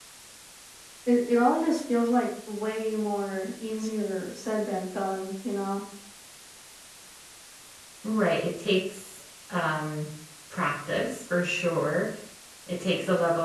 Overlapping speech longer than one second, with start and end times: none

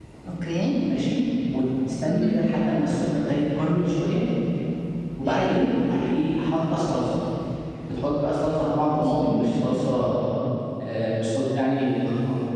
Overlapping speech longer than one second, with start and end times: none

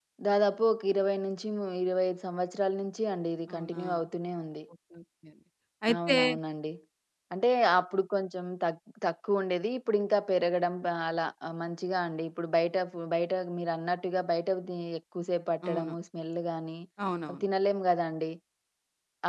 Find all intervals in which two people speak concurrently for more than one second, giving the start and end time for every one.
none

